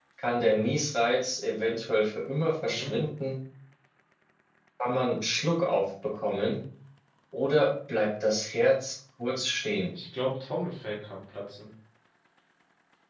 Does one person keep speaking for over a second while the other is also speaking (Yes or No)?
No